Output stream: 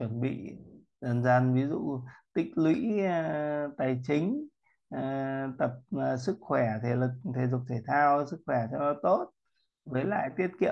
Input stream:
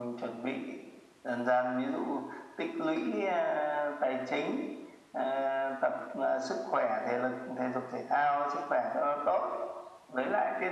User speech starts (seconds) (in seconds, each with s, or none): none